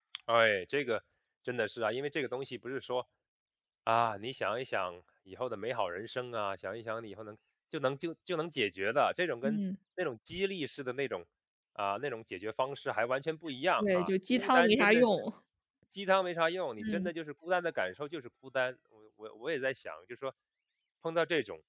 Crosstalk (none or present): present